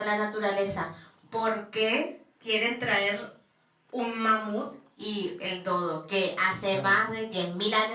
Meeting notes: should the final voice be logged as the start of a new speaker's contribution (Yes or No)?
No